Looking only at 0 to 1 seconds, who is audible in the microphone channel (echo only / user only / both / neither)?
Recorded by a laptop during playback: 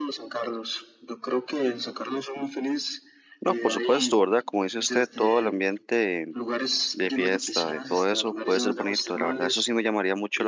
echo only